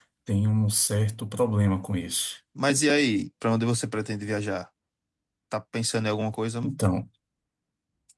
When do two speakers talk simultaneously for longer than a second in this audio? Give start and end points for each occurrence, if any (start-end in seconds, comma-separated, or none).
none